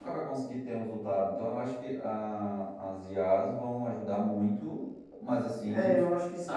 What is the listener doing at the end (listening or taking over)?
taking over